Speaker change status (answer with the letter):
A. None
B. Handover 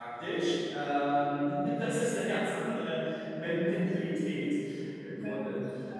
B